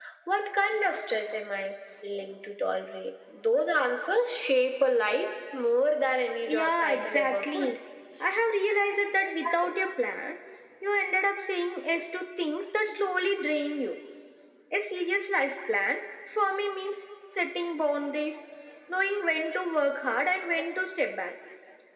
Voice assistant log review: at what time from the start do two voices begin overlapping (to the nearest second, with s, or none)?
6 s